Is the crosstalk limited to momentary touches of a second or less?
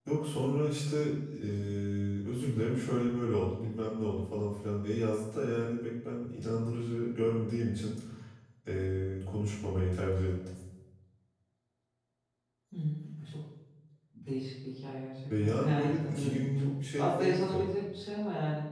No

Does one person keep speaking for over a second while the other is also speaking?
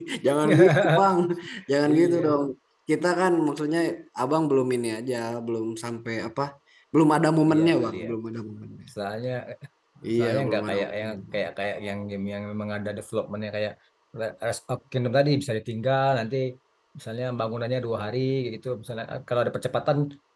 Yes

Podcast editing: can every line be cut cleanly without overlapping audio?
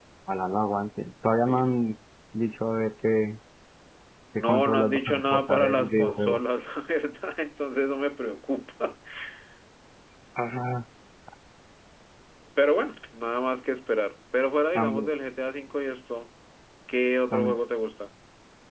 No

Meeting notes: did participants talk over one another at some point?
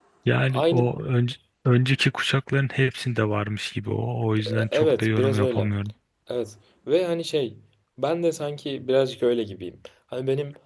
Yes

